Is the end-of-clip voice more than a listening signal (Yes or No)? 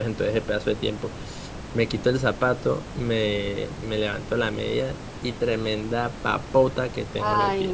Yes